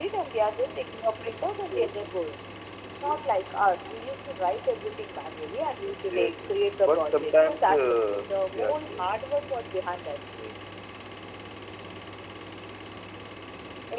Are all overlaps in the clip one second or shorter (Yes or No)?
No